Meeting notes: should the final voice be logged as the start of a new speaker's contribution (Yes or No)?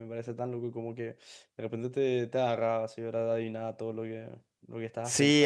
Yes